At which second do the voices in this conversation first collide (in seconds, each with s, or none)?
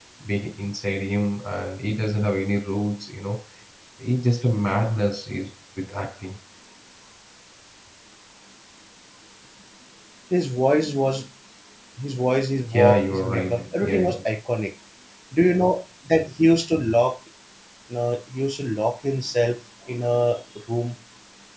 12.7 s